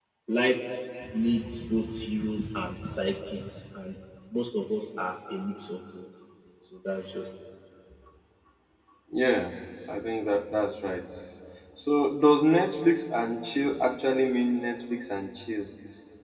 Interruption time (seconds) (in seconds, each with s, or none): none